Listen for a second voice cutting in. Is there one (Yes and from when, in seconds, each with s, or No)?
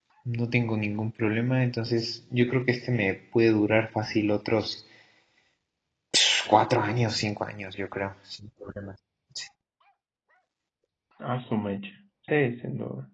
No